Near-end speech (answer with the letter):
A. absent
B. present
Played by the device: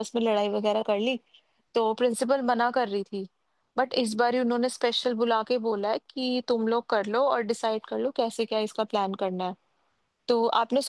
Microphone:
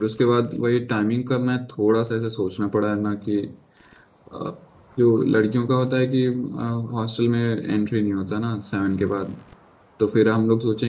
B